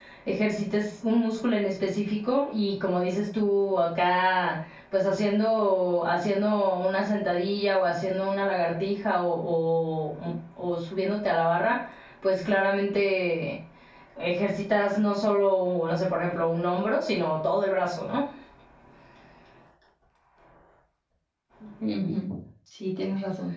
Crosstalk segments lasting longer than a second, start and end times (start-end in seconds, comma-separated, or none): none